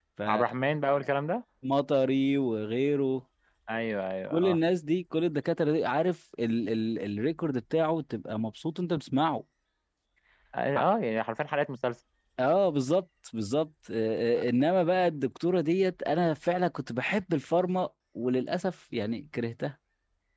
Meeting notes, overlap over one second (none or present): none